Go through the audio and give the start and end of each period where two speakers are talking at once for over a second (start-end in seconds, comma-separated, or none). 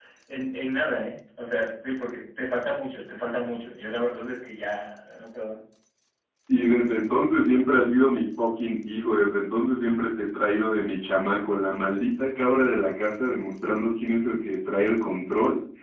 none